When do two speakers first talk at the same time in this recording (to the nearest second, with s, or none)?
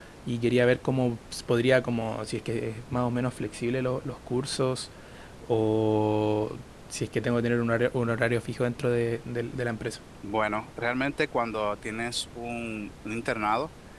none